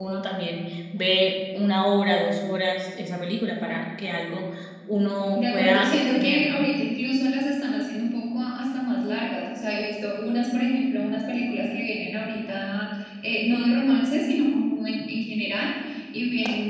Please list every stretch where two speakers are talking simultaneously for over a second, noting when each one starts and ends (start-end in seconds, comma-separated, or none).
5.3-6.7